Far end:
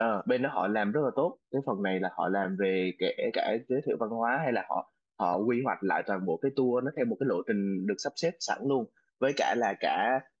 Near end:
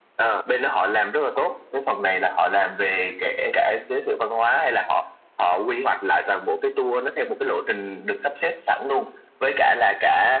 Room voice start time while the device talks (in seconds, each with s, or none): none